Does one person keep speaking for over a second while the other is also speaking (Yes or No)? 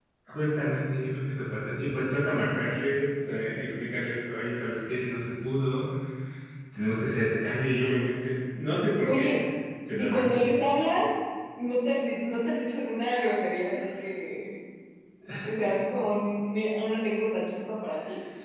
No